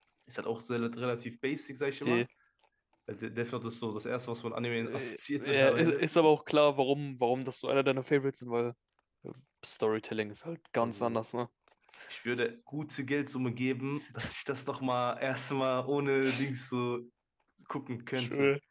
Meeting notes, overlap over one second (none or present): present